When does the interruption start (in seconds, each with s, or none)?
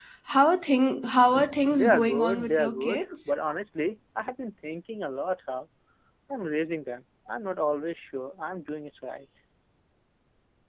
1.7 s